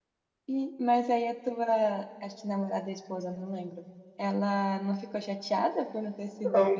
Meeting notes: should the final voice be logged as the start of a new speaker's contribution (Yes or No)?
Yes